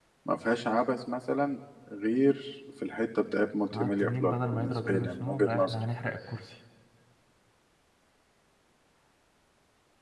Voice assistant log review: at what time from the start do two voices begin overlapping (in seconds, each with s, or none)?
3.7 s